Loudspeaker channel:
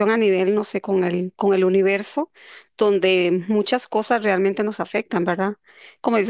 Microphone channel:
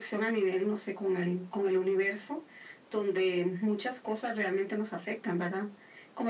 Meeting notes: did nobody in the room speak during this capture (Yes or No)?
Yes